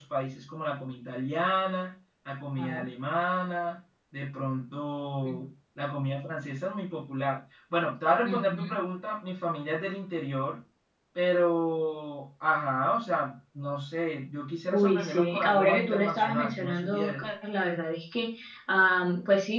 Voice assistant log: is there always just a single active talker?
No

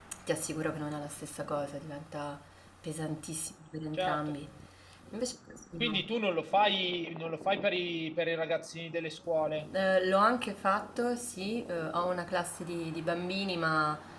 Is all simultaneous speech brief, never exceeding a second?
Yes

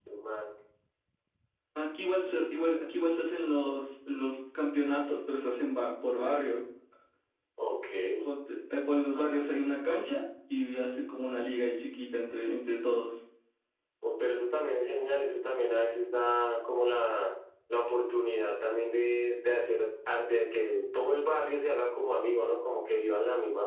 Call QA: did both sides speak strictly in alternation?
Yes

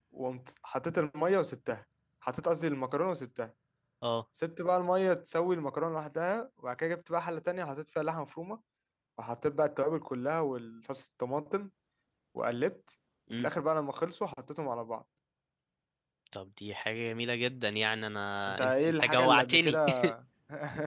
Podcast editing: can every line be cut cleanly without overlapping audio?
No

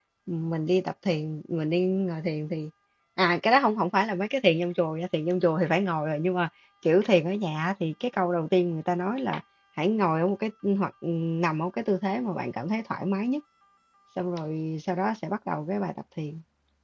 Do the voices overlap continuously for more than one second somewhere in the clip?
No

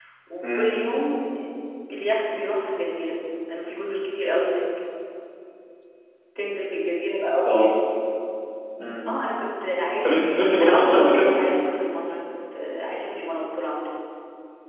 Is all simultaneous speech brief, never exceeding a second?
No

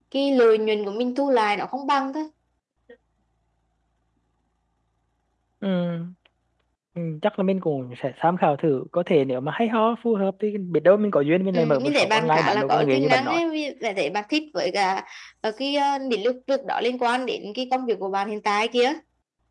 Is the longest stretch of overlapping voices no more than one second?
No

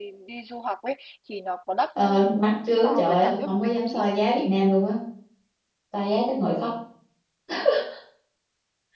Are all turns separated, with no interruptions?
No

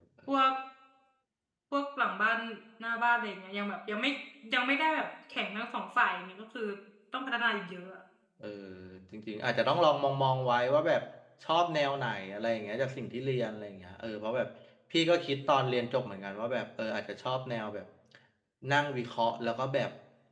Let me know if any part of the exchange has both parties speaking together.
No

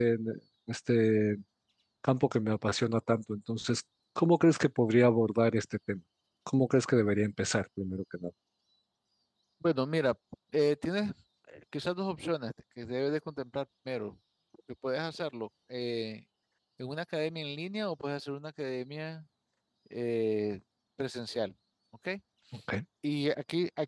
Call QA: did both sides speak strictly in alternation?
Yes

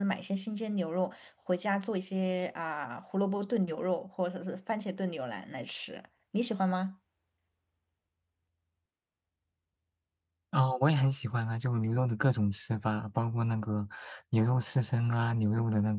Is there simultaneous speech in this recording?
No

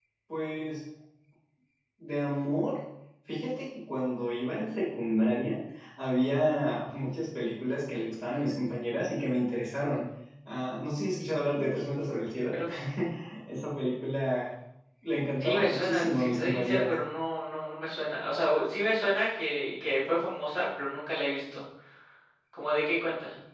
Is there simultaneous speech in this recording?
Yes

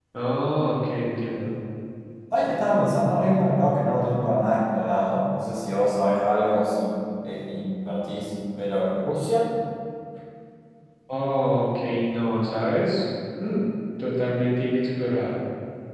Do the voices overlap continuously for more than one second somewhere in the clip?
No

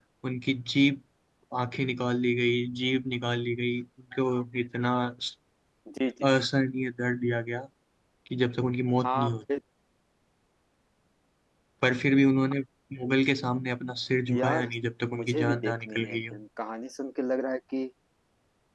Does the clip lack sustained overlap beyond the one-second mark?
No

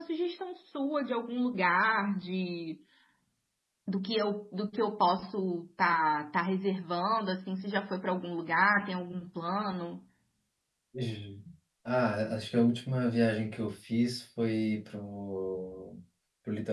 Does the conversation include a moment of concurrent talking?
No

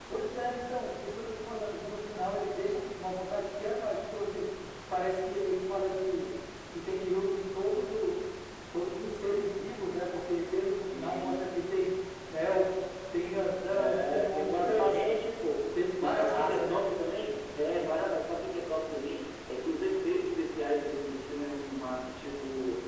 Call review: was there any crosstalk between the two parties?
Yes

